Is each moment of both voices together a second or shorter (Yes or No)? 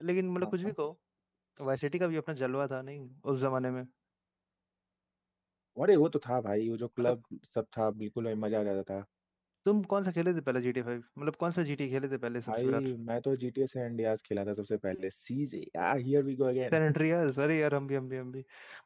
Yes